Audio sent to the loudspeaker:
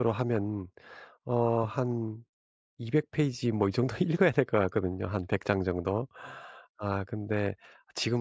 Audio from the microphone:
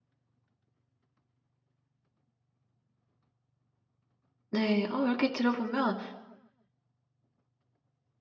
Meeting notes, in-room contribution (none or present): present